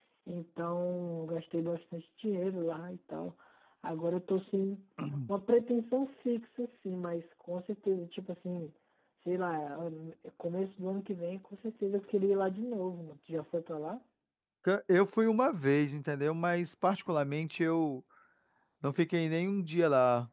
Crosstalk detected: No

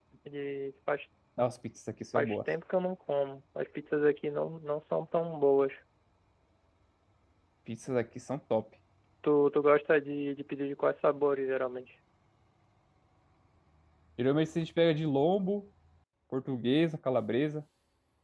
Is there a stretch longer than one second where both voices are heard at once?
No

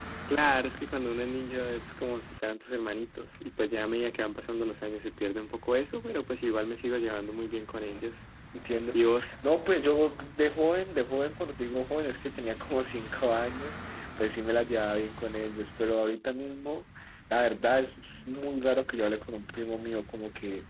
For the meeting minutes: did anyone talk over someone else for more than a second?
No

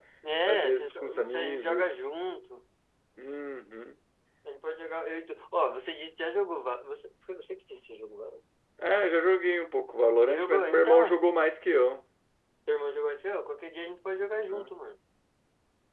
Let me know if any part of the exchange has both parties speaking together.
Yes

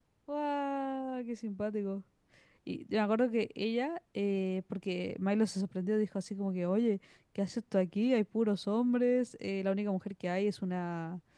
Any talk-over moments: No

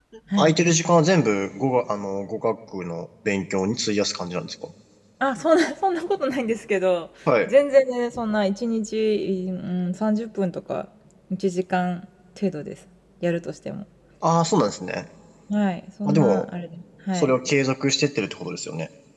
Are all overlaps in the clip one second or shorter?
Yes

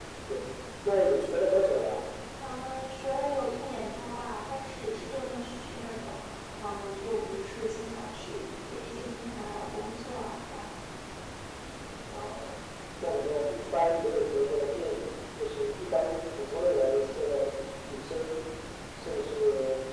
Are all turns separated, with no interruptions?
Yes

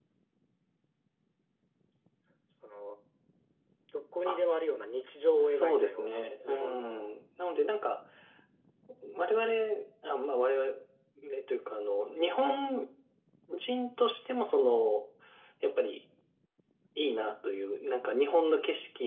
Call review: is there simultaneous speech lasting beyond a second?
Yes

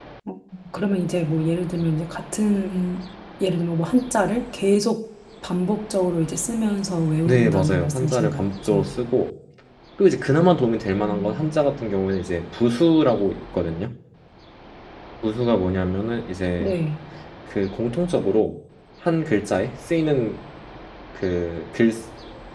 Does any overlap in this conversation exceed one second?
Yes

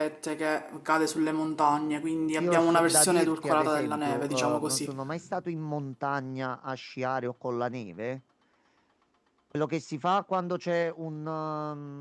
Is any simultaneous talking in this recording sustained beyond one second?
Yes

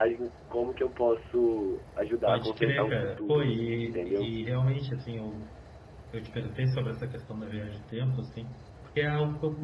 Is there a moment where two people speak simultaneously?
Yes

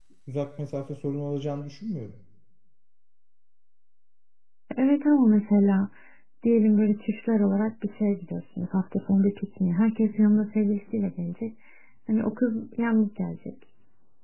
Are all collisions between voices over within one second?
Yes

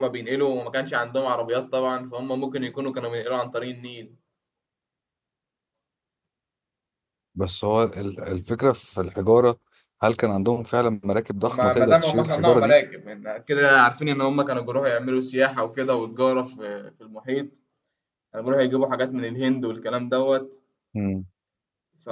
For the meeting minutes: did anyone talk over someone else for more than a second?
Yes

